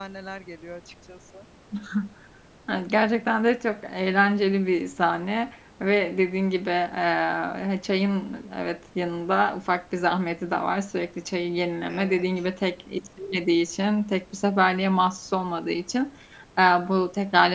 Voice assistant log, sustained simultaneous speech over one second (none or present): none